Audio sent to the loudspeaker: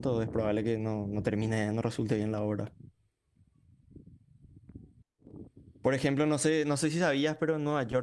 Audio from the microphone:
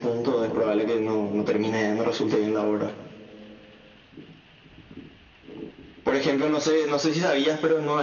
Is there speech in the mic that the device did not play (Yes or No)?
No